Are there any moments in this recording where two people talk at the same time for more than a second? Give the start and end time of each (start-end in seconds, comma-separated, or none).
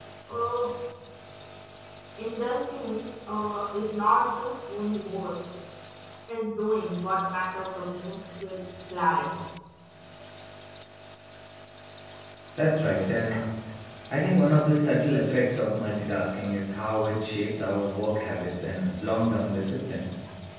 none